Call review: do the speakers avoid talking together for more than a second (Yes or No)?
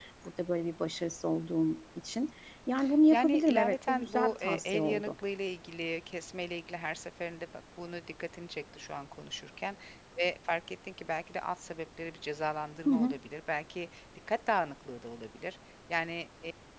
No